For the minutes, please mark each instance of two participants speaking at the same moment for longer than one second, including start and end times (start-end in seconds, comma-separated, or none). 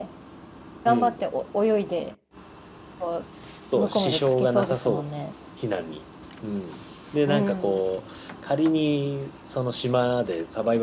3.8-5.1